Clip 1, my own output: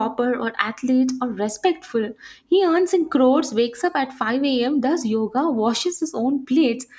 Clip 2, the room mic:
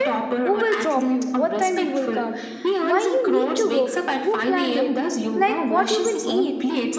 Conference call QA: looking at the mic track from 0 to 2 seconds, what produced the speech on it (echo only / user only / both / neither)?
both